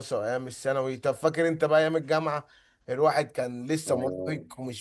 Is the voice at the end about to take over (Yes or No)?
No